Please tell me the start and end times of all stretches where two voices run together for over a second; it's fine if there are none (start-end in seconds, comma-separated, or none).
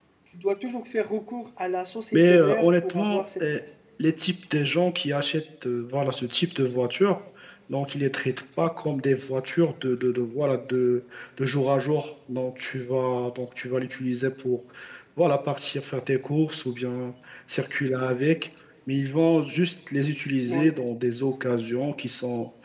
2.1-3.6